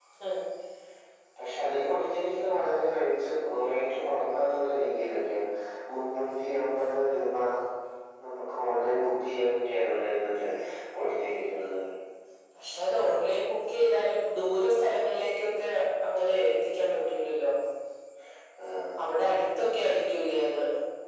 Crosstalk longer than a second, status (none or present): none